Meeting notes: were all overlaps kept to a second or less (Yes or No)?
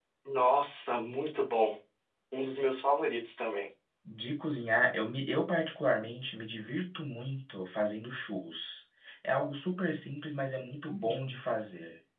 Yes